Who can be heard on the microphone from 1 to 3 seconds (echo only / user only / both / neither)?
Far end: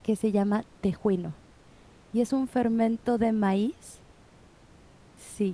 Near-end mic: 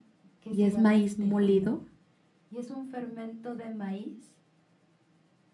both